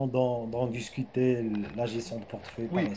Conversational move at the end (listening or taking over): taking over